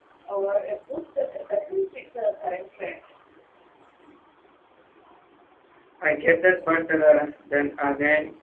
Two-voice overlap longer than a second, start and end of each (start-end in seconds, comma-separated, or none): none